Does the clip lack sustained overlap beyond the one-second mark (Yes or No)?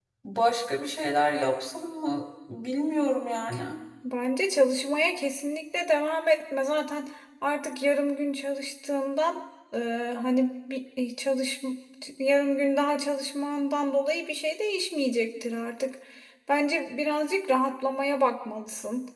Yes